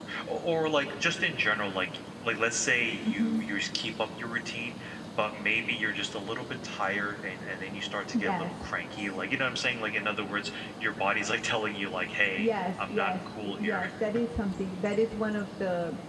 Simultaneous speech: Yes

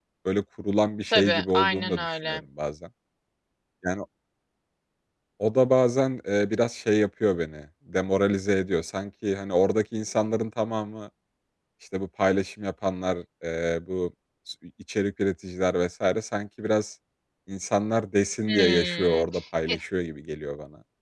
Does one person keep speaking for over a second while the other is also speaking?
Yes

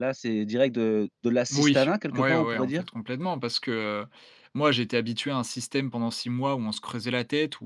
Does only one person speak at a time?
No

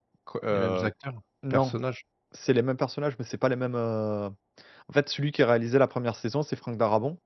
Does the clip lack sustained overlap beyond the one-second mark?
Yes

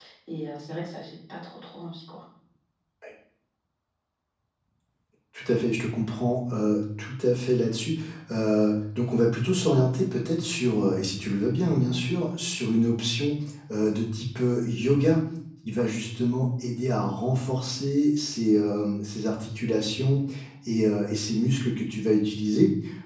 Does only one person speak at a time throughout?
Yes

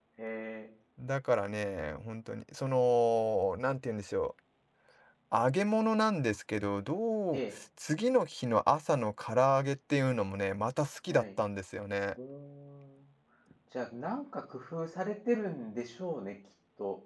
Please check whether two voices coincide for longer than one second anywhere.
No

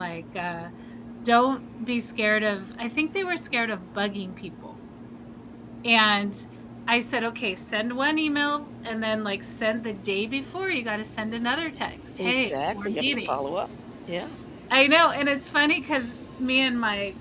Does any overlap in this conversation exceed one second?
Yes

